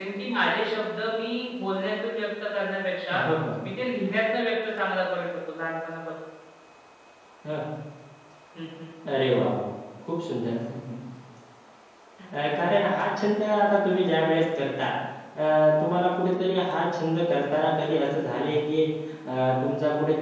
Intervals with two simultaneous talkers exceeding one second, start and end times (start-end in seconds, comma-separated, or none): none